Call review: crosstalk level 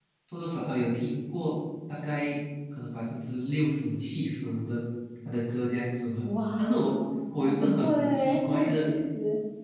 present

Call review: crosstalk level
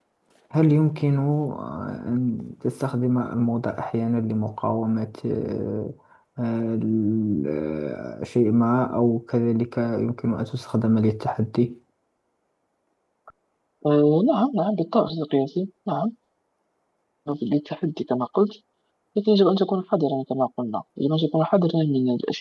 none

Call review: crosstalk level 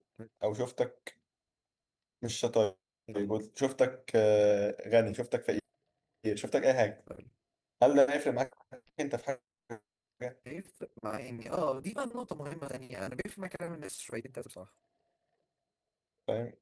none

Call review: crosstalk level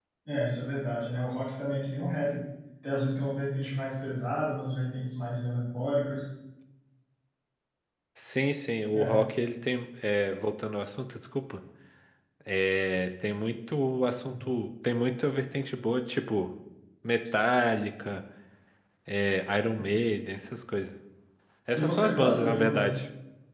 present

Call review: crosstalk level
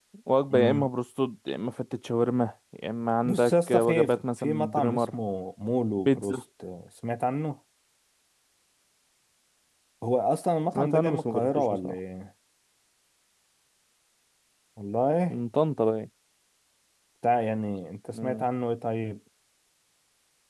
present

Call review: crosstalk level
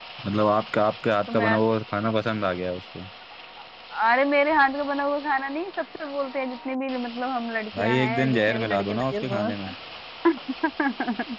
present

